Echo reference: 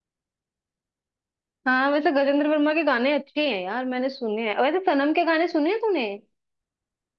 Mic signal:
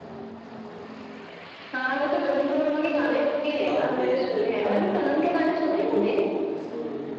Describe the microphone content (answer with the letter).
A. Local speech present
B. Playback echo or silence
A